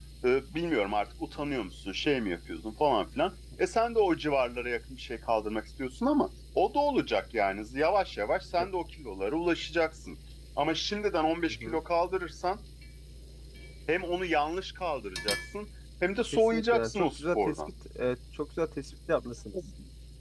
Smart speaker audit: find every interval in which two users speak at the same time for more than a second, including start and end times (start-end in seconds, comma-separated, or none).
16.3-17.6